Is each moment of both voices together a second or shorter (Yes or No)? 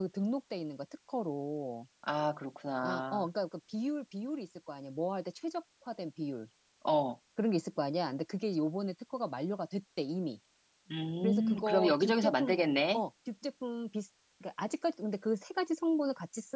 No